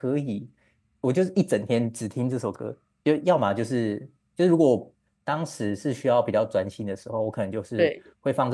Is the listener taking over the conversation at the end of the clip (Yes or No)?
No